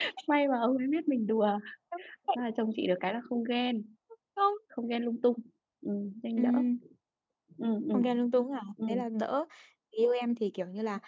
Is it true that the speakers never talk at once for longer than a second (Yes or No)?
Yes